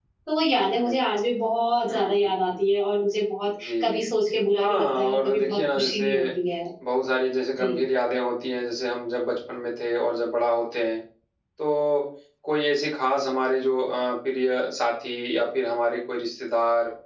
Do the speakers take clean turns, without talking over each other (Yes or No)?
No